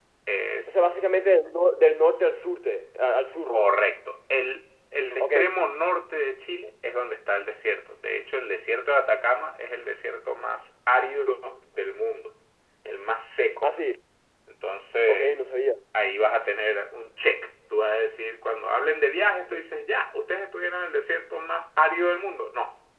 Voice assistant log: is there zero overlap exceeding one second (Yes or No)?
Yes